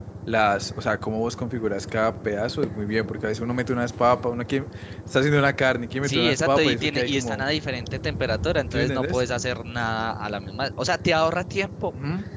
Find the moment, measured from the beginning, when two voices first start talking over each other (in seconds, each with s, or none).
6.0 s